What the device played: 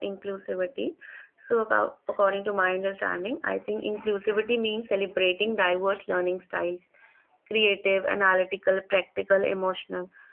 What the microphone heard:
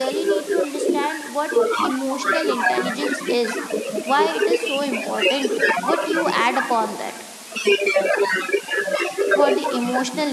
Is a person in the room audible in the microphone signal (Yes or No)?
Yes